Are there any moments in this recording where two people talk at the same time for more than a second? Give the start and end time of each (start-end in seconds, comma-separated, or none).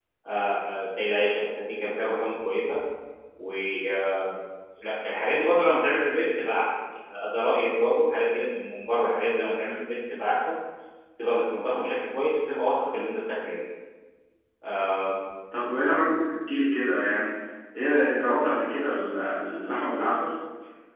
none